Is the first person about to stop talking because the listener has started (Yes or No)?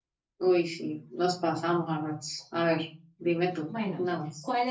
Yes